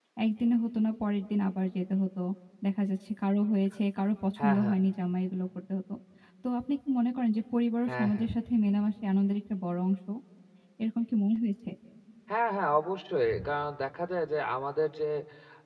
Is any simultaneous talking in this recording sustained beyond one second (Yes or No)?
No